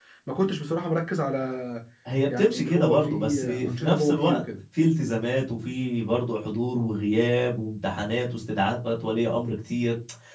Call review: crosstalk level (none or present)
present